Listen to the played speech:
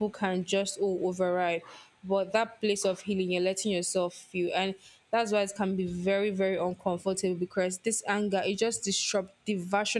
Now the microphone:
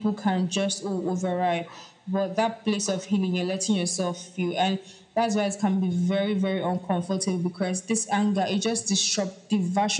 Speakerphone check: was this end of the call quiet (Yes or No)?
Yes